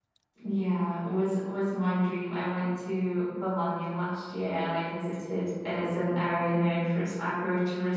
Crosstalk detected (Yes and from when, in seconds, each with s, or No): No